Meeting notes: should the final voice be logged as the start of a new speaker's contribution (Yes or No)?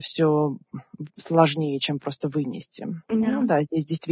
No